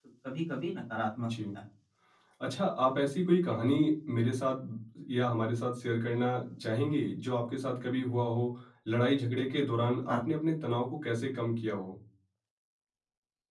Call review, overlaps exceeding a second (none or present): none